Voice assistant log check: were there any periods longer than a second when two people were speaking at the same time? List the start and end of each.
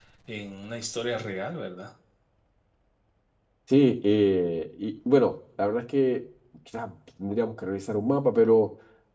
none

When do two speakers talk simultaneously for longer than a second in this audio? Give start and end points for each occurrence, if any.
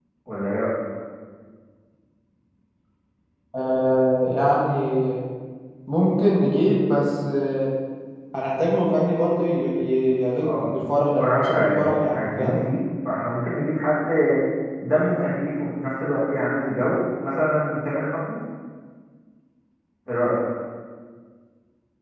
11.2-12.6

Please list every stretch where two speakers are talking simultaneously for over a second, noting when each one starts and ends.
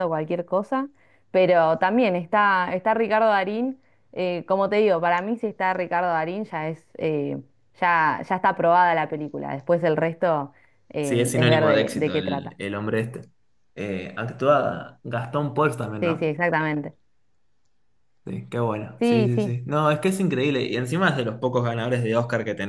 11.0-12.5

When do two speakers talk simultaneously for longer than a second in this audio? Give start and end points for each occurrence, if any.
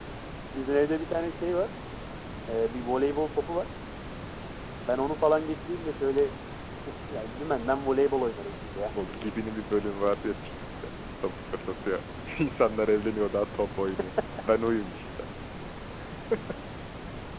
none

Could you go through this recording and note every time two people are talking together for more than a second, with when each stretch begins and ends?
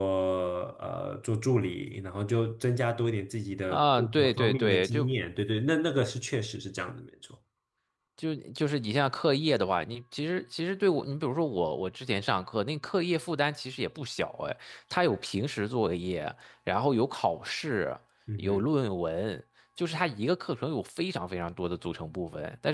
3.7-5.1

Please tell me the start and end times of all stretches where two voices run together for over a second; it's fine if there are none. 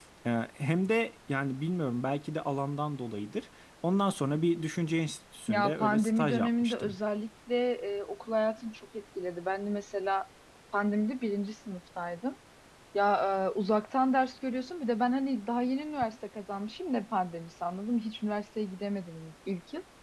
5.5-7.0

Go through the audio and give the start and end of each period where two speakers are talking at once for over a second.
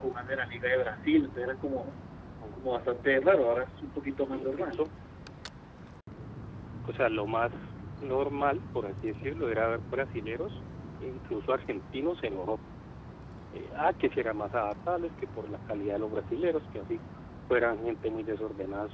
none

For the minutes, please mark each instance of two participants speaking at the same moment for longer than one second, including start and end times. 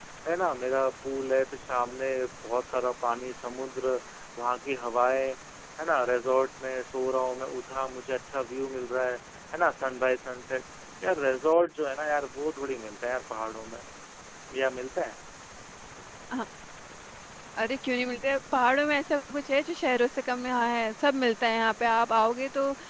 none

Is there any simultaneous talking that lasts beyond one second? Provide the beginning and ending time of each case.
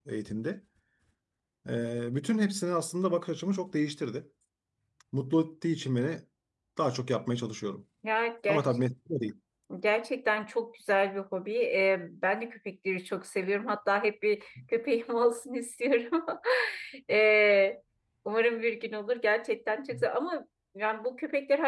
none

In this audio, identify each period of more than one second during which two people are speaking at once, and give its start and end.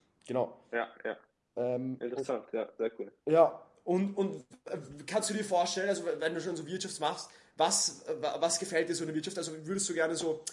none

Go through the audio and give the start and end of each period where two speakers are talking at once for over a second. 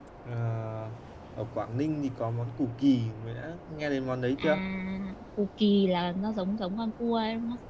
none

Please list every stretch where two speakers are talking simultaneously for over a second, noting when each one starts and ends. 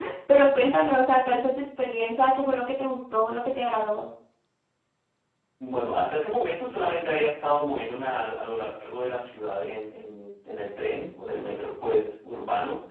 none

